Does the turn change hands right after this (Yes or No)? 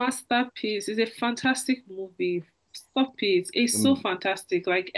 No